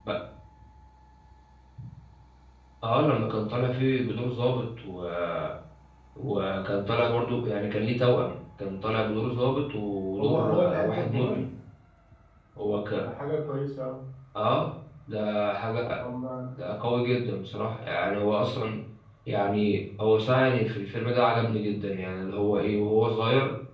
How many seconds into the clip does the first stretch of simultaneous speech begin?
10.2 s

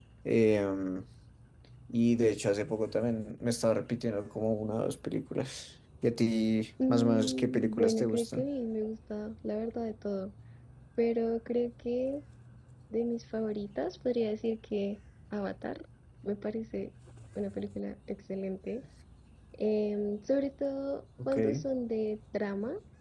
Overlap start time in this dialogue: 6.9 s

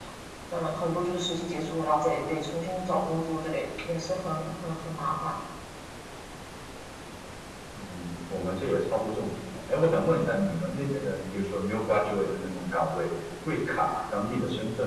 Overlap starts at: none

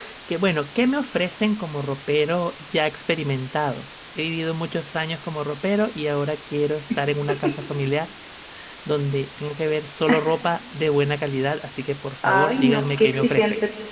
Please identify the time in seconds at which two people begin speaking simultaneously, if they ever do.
12.2 s

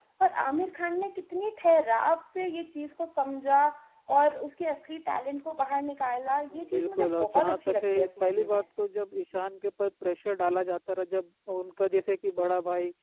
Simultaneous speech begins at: 6.5 s

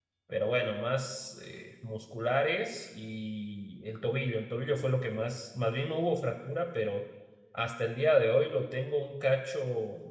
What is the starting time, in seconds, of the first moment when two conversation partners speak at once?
none

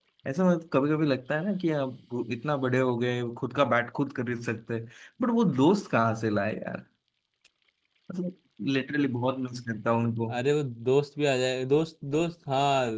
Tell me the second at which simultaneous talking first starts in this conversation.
none

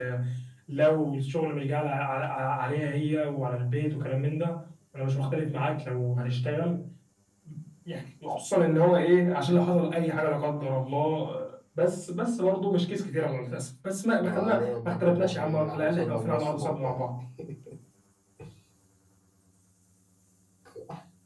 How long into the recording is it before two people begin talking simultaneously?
14.2 s

